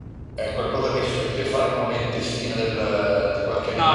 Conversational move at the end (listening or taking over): taking over